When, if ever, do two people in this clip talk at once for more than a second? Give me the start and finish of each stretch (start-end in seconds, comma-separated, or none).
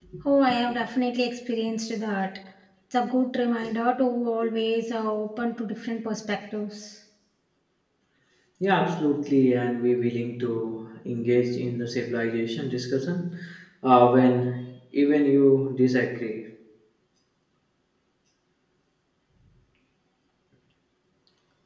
none